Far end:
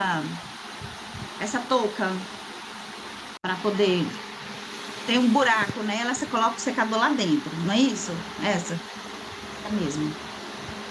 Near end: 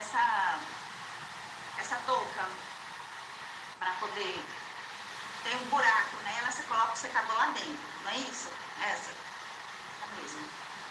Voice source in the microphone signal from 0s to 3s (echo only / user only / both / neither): echo only